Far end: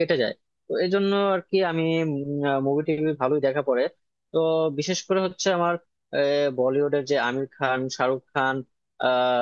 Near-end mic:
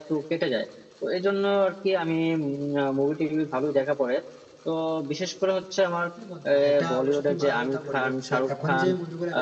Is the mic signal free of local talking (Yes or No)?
No